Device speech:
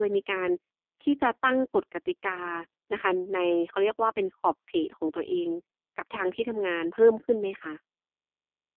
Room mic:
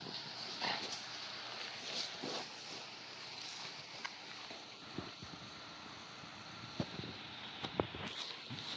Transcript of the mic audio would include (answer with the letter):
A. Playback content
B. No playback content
B